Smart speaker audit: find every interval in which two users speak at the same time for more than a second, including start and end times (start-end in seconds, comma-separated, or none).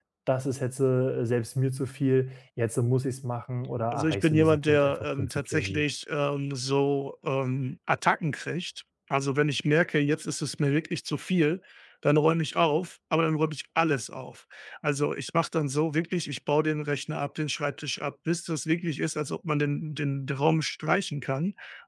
3.9-5.8